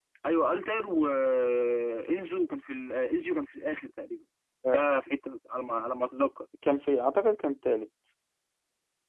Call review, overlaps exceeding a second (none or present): none